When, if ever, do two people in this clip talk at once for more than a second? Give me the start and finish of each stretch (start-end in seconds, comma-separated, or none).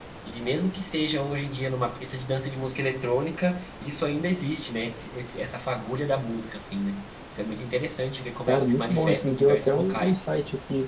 8.5-10.3